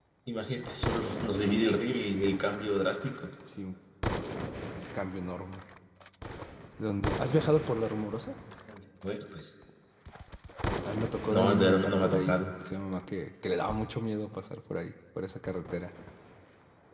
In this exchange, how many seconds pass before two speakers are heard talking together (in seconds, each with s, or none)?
11.3 s